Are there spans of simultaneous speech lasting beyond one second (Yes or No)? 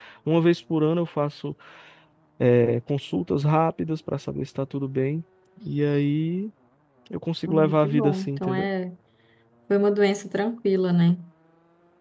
Yes